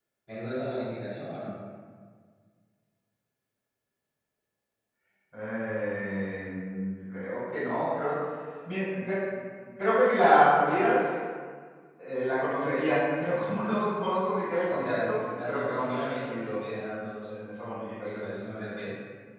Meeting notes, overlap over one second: present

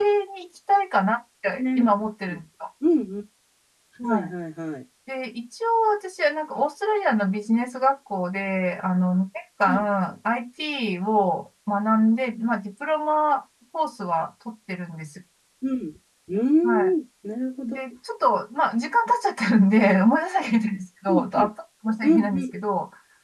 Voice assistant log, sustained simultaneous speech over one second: none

